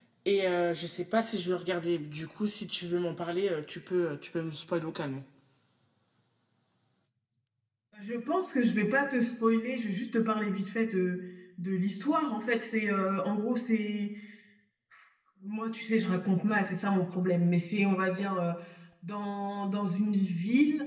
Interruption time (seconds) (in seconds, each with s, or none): none